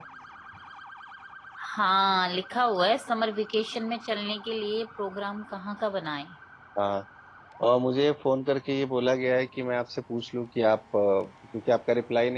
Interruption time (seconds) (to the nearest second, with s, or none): none